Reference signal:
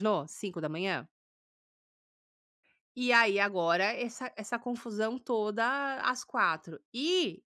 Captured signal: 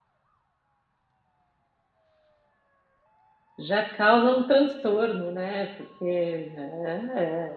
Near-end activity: present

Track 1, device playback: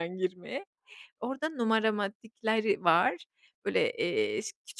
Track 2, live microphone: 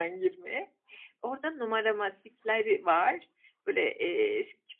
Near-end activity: none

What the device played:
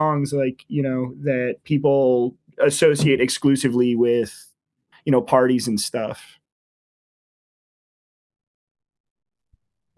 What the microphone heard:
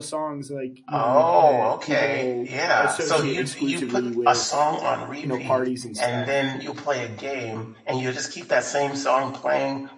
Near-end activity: present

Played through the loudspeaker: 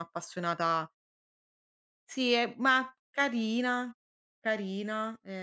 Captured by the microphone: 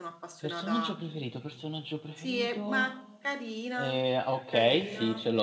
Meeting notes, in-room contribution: present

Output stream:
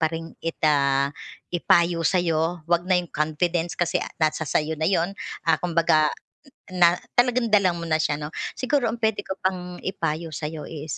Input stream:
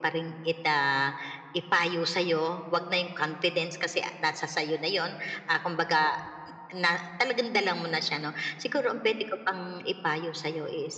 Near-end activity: none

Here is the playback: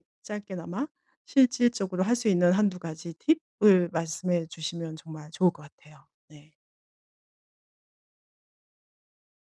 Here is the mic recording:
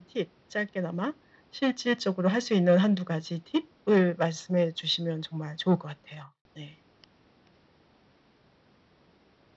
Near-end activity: none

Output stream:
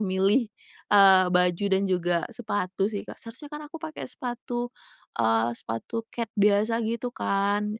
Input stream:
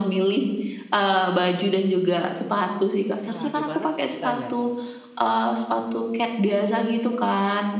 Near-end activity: present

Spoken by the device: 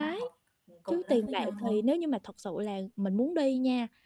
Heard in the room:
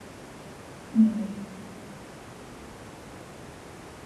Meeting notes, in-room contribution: present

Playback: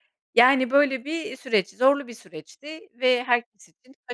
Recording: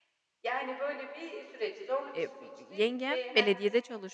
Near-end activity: present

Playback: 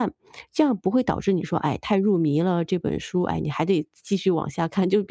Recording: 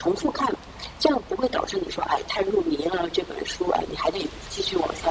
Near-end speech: none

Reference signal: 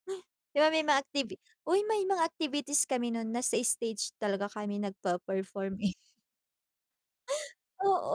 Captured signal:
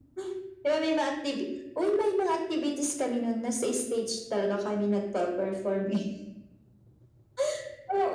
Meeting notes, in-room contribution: none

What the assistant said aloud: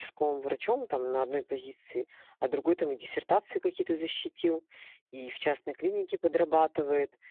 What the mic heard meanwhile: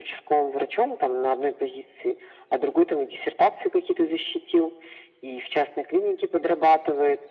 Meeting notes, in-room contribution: none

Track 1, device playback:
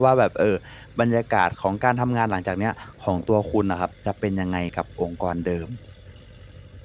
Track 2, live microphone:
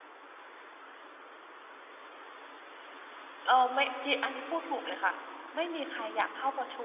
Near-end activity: present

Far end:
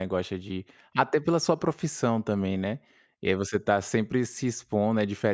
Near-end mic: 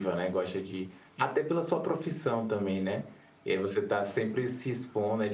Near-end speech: none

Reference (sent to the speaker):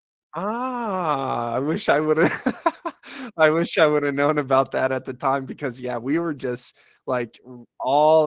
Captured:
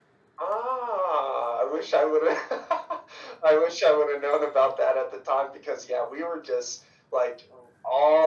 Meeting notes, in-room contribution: none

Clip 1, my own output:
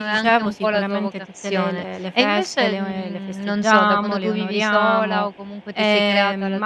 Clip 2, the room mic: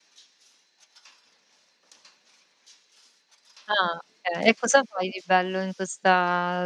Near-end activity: present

